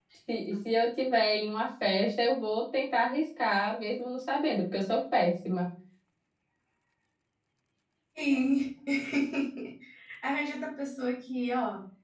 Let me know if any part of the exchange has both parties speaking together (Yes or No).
No